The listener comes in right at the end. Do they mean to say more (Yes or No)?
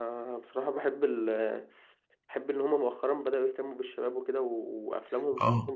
Yes